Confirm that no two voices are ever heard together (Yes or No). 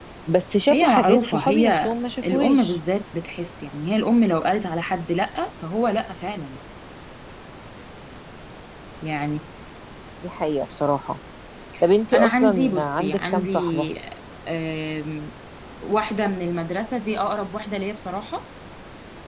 No